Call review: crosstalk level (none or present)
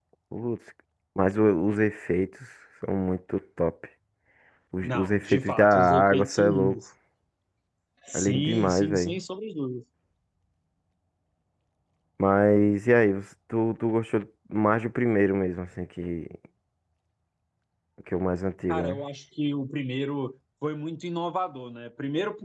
present